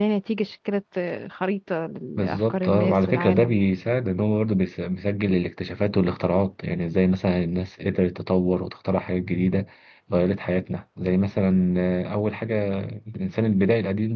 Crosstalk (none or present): present